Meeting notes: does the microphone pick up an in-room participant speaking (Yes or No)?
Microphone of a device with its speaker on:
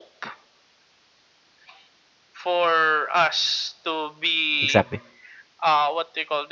Yes